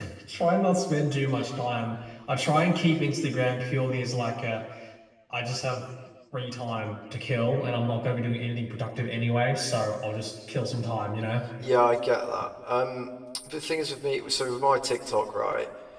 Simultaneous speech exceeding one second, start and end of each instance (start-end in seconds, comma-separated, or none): none